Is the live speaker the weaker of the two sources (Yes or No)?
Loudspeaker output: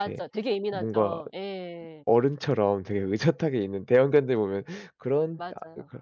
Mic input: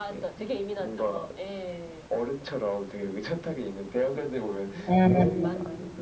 No